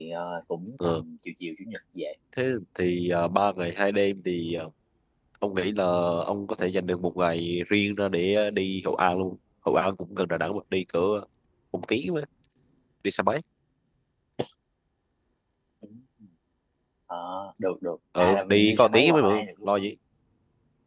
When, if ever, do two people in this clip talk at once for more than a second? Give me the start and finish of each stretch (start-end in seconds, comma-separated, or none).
18.2-19.7